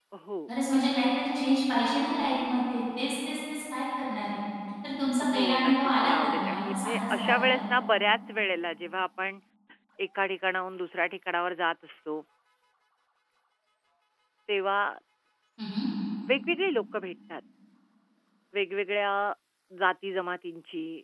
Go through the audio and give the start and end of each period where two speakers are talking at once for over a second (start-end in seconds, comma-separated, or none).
5.3-7.6